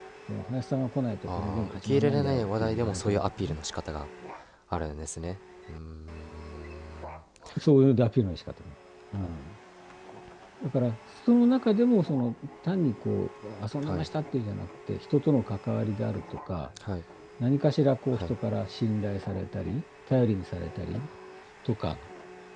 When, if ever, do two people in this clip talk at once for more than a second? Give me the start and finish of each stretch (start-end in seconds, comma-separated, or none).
1.3-3.6